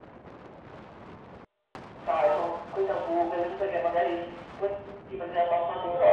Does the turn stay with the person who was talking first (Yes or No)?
No